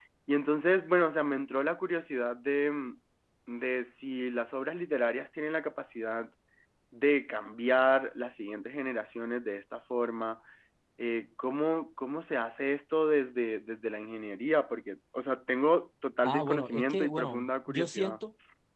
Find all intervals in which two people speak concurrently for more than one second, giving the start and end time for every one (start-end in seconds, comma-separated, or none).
16.2-18.2